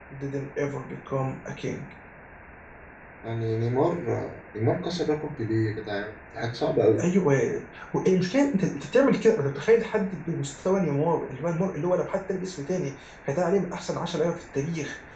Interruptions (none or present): none